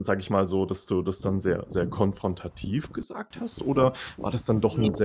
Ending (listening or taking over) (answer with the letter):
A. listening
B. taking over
A